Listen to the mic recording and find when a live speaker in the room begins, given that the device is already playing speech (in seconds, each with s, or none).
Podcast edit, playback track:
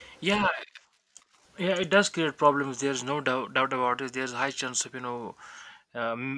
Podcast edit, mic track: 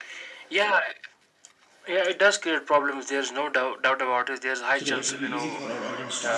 4.7 s